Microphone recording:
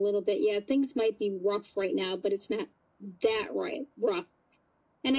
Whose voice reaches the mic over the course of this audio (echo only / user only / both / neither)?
echo only